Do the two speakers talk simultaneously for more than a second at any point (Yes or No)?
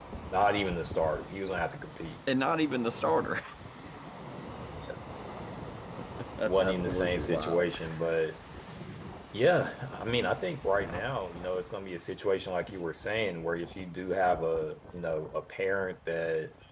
Yes